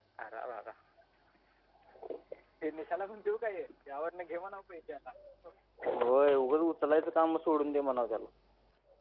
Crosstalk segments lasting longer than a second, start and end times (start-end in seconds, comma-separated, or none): none